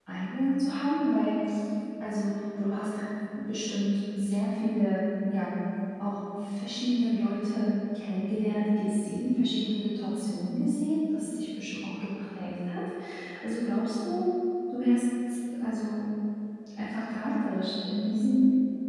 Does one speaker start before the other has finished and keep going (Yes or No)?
No